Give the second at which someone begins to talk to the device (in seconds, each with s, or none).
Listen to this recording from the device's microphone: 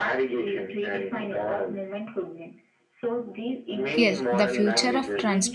4.0 s